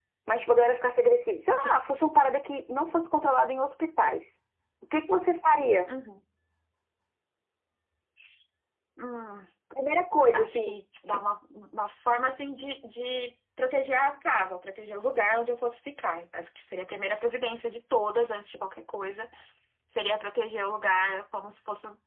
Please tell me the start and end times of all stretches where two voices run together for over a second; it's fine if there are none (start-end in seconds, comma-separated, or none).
none